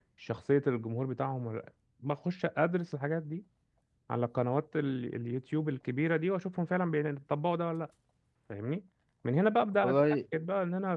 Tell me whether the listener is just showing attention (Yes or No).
Yes